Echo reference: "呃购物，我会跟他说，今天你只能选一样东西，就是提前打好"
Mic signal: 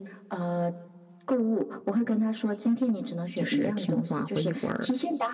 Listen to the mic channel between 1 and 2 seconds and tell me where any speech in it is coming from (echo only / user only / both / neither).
echo only